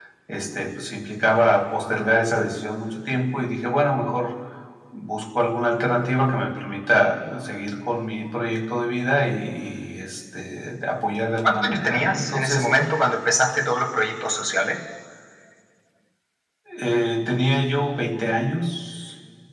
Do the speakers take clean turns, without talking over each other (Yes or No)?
No